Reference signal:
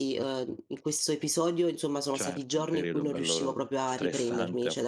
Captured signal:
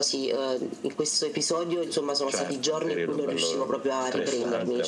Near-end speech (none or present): present